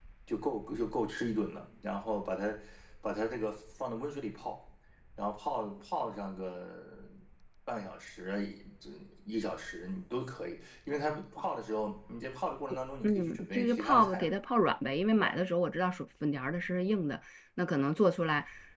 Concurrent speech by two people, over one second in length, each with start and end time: 13.0-14.3

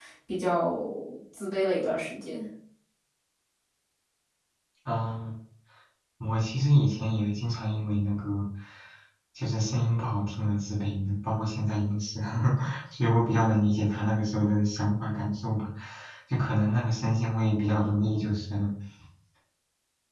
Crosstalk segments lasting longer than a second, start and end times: none

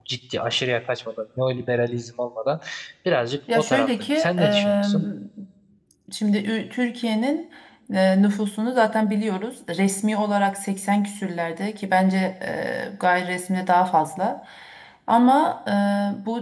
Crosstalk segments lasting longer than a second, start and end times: 3.5-4.9

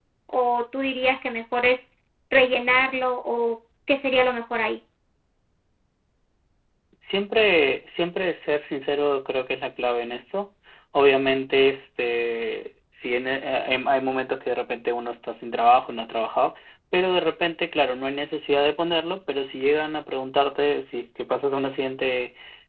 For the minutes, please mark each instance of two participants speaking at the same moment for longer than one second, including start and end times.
none

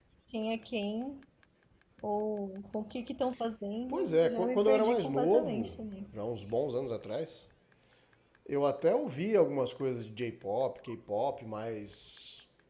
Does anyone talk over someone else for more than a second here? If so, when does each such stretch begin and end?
3.9-5.8

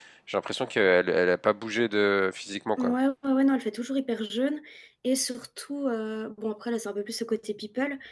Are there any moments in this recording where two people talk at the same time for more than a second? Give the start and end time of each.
none

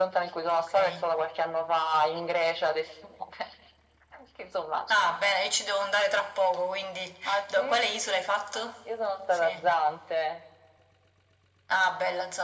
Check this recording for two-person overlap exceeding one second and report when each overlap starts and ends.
none

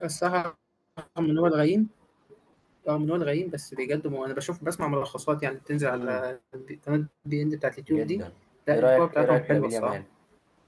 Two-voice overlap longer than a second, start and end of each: 8.7-10.0

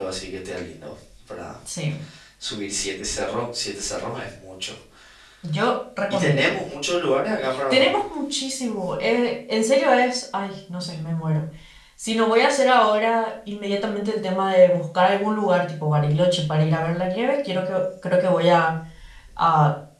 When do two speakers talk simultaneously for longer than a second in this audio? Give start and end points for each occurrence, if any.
none

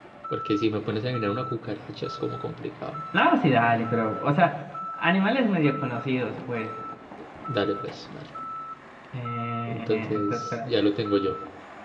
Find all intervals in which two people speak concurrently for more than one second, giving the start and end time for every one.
9.7-10.9

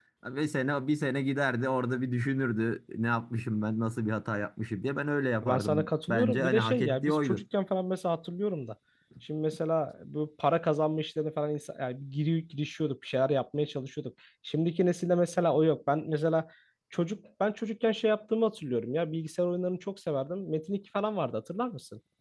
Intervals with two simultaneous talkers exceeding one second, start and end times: 5.5-7.4

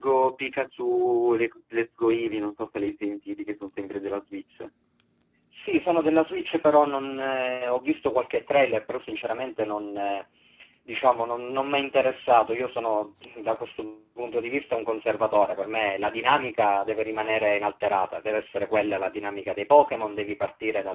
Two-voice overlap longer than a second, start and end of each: none

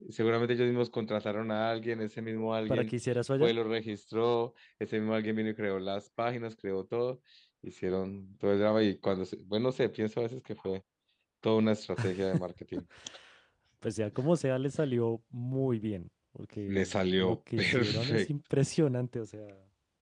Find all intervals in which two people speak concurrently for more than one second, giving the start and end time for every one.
16.7-18.3

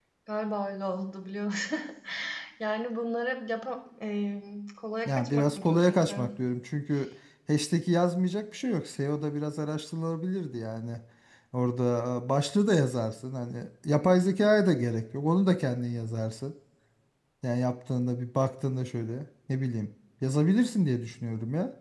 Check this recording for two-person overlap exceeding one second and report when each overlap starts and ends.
5.0-6.3

